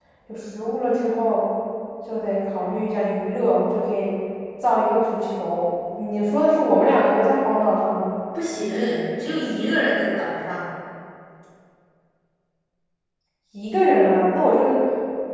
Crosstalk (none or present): none